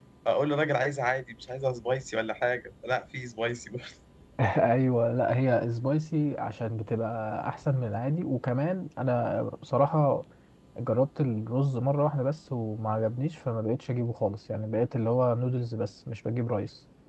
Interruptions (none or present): none